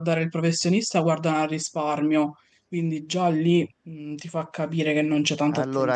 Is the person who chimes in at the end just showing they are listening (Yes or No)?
No